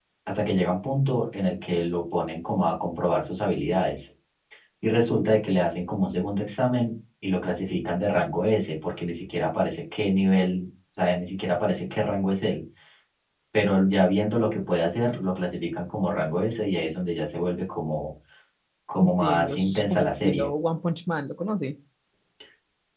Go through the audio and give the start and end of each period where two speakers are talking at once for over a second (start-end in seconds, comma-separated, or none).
19.0-20.5